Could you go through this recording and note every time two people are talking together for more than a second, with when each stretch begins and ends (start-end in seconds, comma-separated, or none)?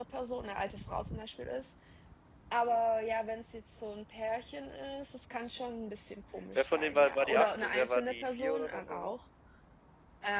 6.5-9.1